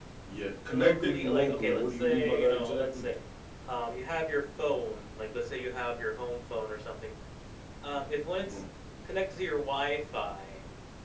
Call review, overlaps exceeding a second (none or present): present